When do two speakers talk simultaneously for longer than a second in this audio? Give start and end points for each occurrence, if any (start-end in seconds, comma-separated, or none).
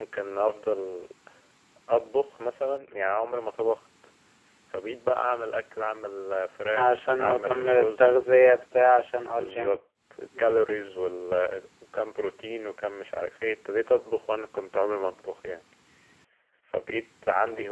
6.7-8.2